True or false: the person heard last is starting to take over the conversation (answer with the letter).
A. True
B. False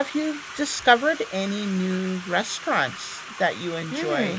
A